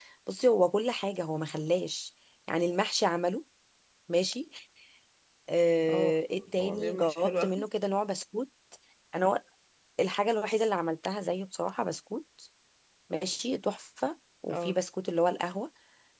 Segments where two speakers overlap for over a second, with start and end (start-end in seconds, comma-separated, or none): 5.9-7.7